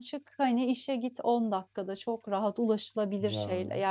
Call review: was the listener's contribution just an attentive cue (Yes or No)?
Yes